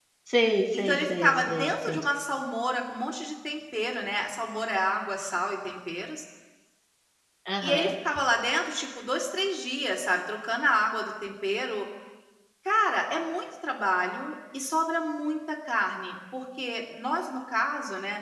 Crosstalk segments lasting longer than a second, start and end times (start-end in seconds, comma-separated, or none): 0.7-2.1